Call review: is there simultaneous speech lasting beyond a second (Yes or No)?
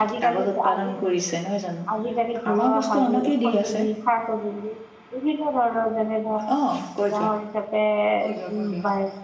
Yes